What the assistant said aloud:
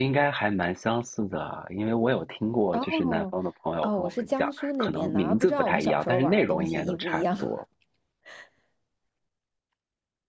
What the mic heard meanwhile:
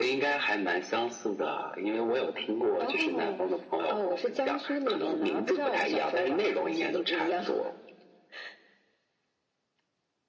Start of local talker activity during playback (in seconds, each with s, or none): none